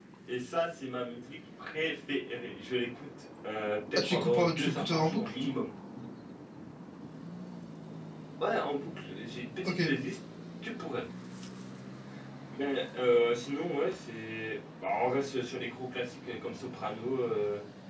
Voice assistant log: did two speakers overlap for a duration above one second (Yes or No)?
Yes